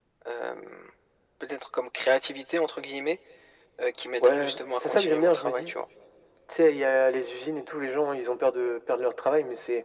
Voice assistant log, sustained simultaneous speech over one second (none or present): present